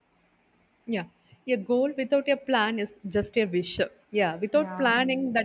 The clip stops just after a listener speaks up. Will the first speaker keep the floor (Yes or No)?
Yes